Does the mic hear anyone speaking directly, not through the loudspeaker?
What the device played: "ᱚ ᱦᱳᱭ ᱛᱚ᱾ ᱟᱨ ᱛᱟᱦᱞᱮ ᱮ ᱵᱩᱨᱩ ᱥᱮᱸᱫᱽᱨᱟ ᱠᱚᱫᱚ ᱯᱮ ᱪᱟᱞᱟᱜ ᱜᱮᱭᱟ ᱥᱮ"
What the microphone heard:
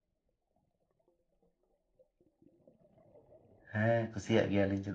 Yes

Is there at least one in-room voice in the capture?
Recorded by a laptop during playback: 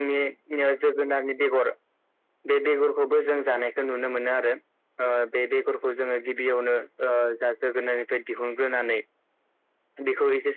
No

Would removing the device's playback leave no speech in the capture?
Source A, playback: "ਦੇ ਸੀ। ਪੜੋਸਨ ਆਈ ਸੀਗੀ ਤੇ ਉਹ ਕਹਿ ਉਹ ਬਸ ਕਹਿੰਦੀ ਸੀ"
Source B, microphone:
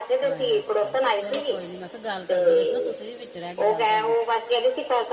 No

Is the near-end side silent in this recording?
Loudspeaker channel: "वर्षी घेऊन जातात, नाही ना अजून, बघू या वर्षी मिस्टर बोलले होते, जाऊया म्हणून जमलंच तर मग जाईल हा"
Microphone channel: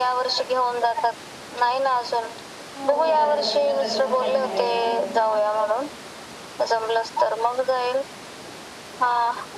No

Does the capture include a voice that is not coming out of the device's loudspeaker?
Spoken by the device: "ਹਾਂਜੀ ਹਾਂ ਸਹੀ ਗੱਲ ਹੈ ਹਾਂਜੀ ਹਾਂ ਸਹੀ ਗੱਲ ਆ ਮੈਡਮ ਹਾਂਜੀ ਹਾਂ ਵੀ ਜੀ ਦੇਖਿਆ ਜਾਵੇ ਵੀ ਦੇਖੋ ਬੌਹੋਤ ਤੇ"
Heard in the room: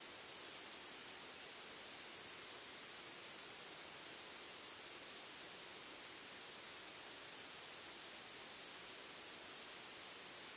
No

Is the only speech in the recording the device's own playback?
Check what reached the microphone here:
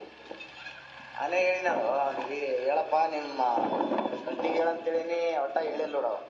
Yes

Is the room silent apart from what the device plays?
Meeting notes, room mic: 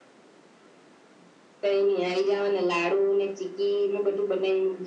Yes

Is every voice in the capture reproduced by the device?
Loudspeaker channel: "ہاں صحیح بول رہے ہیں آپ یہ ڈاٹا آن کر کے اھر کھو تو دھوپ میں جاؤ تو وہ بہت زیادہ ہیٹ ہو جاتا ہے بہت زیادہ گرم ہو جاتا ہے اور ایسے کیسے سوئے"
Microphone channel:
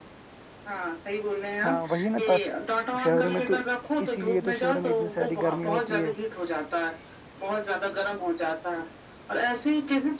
No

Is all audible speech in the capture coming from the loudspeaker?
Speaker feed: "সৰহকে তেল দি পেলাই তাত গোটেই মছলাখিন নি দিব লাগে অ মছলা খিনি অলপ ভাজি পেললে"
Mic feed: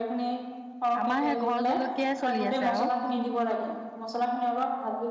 No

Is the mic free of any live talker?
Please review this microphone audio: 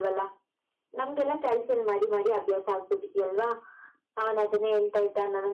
Yes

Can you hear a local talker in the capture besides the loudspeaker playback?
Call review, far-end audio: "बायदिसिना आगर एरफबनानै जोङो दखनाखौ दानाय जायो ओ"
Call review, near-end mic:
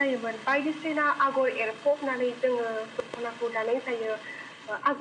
No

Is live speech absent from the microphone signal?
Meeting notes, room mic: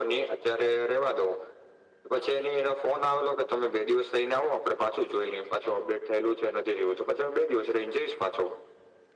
Yes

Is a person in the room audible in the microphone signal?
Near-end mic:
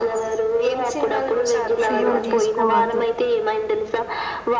Yes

